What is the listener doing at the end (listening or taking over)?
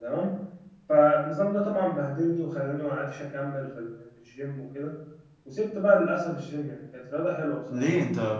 taking over